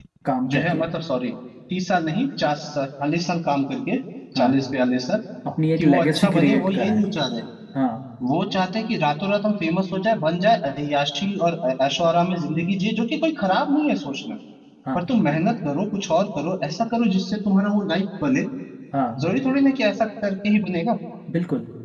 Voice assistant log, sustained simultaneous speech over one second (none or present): present